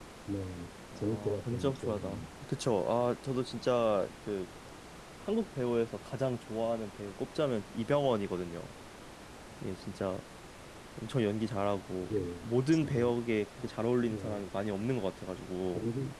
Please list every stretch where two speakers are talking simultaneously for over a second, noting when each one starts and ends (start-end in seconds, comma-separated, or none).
1.0-2.2